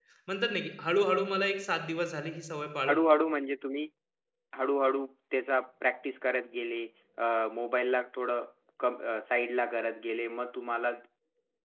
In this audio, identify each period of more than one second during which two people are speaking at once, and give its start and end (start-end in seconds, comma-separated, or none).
none